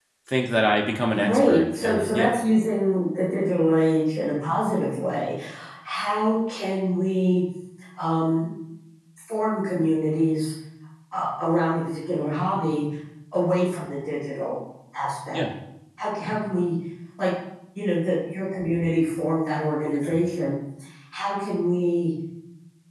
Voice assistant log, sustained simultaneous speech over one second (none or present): present